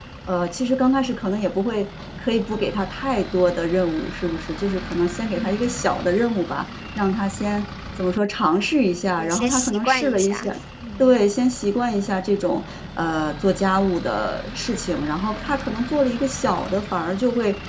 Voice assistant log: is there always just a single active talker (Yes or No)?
No